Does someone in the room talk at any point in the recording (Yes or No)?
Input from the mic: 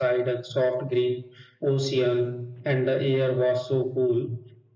No